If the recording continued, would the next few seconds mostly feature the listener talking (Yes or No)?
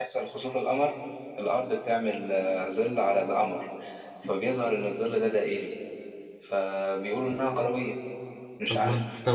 Yes